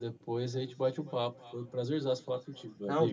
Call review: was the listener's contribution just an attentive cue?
No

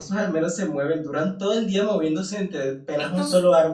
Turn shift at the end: No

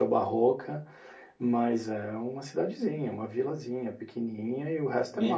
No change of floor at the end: Yes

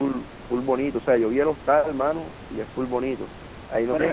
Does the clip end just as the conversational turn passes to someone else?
No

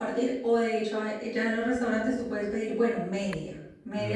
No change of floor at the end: No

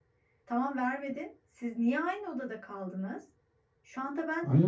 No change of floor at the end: No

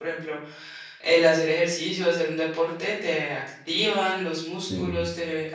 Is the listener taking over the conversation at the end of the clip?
No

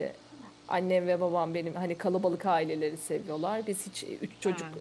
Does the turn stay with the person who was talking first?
Yes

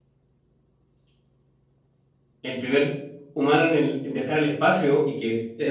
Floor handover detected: No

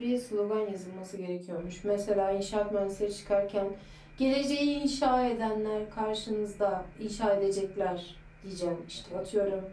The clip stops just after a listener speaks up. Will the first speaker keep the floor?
No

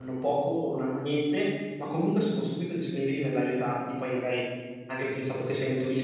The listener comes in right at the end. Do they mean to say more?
No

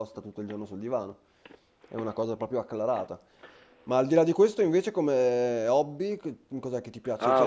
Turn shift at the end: Yes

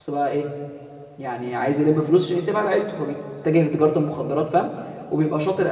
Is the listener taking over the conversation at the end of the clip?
No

